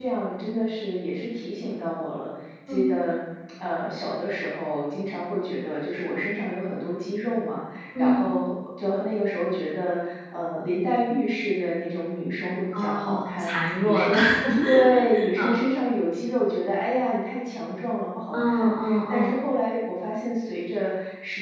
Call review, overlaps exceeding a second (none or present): present